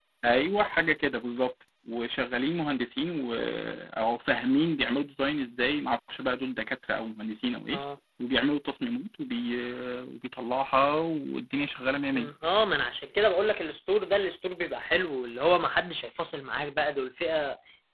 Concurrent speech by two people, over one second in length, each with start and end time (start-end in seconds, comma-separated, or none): none